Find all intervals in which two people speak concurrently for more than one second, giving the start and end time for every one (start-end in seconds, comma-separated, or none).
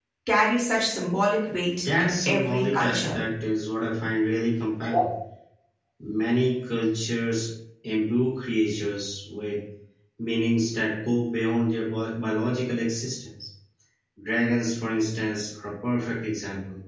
2.0-3.2